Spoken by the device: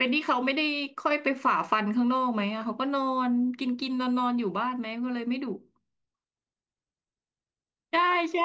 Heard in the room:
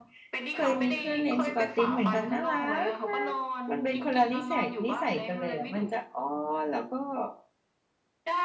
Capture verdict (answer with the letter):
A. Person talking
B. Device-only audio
A